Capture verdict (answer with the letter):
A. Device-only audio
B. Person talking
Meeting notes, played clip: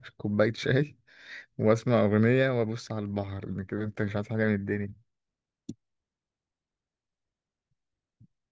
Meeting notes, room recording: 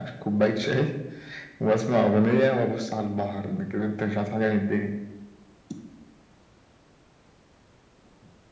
A